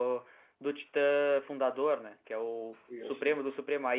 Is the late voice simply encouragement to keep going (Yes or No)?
Yes